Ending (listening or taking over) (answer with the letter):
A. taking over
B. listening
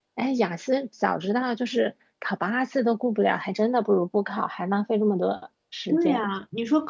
A